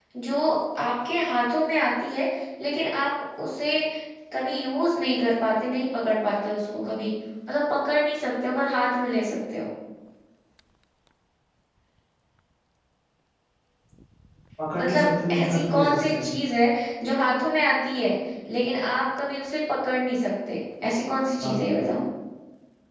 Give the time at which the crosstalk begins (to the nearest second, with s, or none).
15 s